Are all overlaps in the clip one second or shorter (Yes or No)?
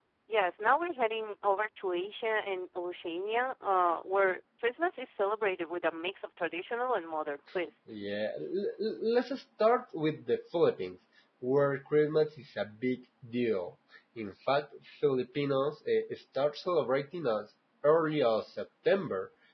Yes